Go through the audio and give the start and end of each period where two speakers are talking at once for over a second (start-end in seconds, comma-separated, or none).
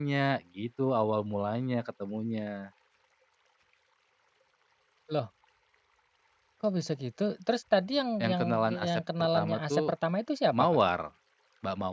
8.2-9.8